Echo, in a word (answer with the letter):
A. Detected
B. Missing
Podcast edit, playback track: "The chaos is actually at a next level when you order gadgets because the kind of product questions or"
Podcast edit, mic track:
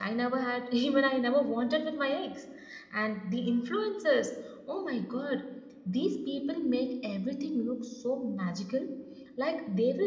B